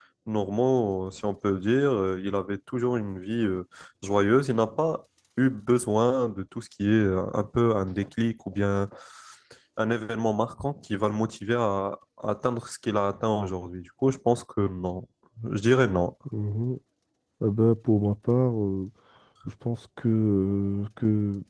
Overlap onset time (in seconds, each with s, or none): none